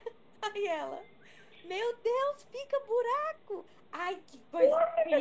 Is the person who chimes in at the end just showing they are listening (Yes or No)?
No